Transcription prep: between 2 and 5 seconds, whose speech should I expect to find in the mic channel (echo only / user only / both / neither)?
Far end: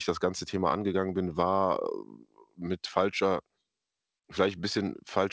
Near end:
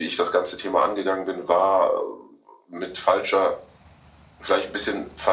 echo only